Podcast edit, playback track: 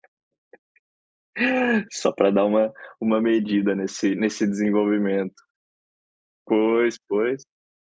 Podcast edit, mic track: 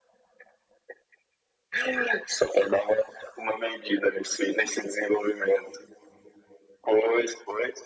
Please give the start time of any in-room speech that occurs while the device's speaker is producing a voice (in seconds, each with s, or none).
none